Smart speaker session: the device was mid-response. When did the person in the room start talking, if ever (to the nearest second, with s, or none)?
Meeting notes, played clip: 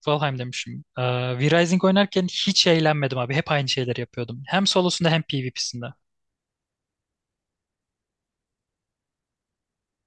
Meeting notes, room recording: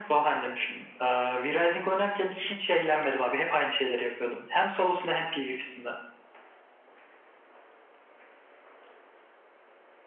none